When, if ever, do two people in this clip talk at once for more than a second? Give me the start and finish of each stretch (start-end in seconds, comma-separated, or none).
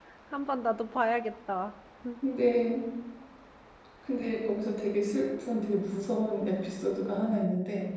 none